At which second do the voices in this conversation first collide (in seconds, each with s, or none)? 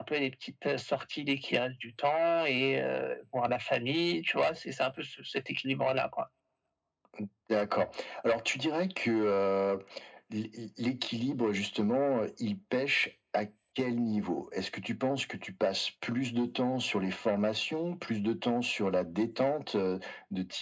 none